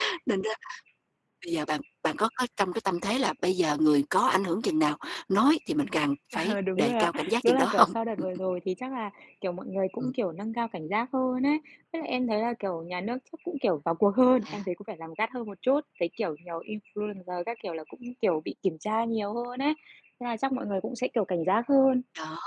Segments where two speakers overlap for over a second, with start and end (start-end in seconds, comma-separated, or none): 6.5-7.9